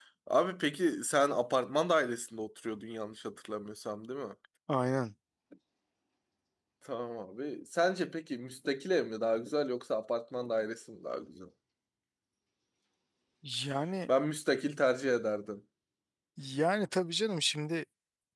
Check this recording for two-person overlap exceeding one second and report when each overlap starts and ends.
none

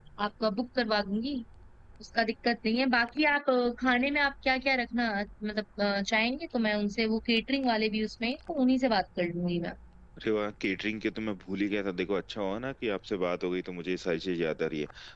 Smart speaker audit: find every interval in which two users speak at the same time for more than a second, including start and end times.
none

